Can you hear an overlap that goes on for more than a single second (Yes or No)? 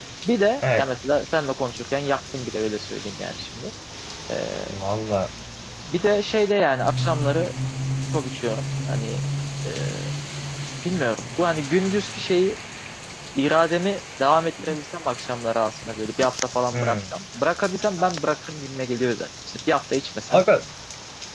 No